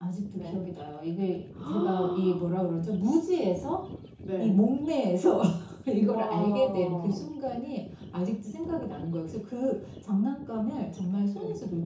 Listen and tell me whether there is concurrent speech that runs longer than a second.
Yes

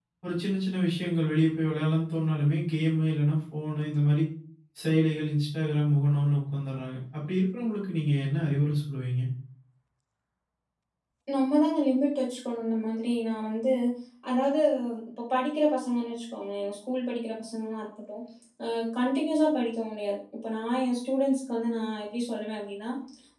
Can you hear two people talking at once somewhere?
No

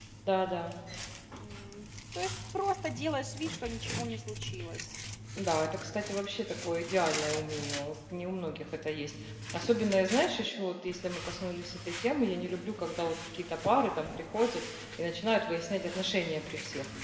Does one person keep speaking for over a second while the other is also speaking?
No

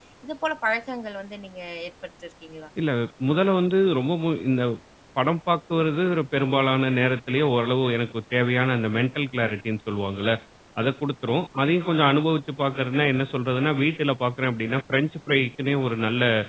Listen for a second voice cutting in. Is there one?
No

